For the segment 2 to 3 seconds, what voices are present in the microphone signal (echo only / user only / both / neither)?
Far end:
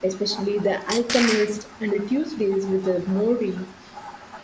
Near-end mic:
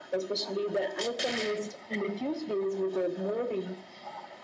echo only